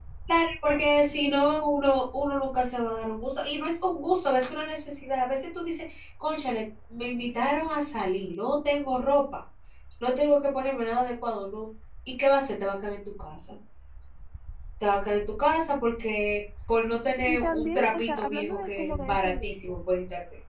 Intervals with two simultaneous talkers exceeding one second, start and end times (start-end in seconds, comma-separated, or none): 17.2-19.8